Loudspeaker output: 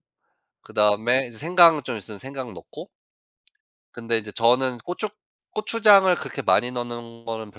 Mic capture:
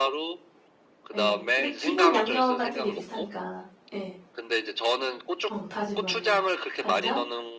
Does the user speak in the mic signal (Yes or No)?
Yes